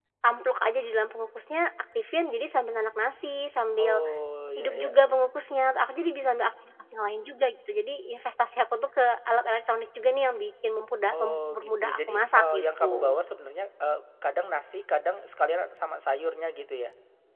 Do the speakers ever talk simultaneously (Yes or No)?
Yes